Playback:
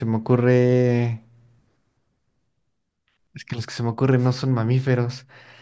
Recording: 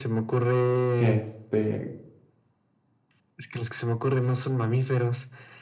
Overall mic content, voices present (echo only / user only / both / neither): both